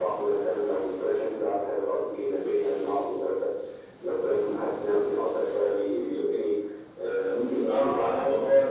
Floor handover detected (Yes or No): Yes